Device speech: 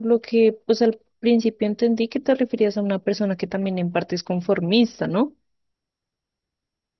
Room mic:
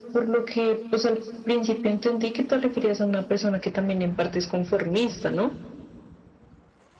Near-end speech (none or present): none